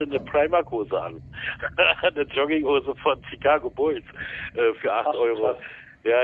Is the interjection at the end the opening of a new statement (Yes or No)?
No